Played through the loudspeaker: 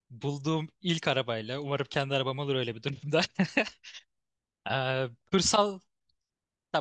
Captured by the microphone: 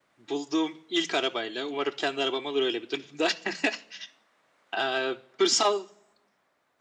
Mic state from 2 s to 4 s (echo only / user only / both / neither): echo only